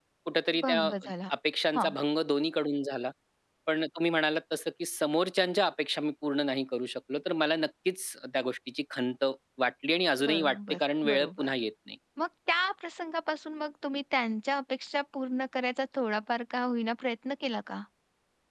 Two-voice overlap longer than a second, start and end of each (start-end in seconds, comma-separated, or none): 10.2-11.5